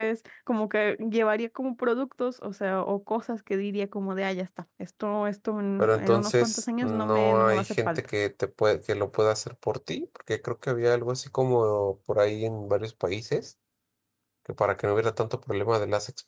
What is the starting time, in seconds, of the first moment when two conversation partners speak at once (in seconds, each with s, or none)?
5.8 s